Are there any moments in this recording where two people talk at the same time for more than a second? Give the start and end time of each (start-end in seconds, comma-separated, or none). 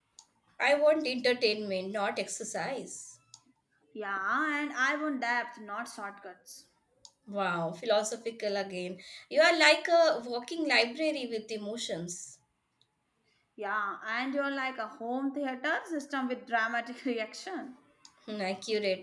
none